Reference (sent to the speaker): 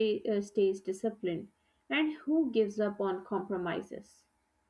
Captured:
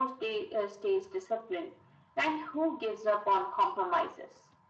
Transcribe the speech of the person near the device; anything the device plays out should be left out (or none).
none